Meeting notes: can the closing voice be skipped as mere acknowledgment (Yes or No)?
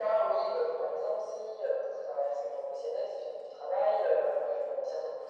Yes